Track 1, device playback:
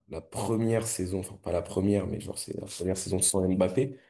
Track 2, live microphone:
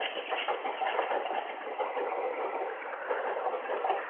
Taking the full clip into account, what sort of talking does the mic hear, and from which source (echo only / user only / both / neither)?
neither